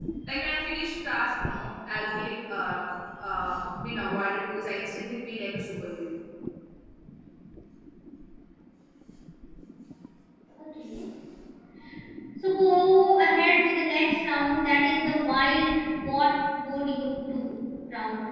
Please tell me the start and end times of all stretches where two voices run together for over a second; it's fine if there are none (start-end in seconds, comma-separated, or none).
none